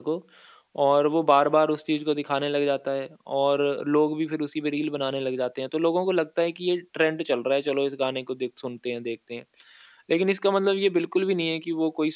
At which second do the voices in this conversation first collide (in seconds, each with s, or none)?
none